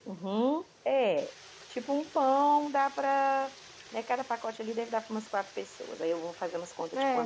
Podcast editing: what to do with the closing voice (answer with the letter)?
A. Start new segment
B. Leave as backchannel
A